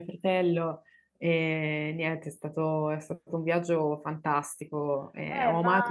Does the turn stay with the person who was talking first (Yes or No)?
No